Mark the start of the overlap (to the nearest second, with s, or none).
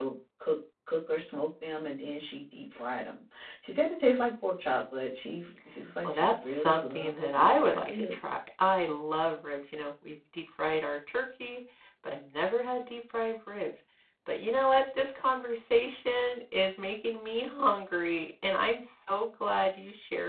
6 s